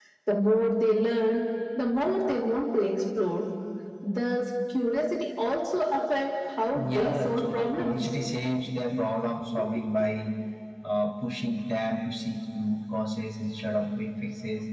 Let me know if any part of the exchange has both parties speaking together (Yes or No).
Yes